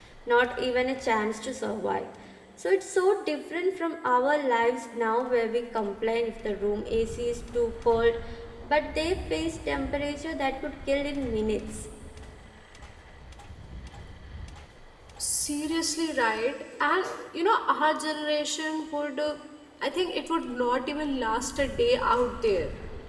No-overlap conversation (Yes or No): Yes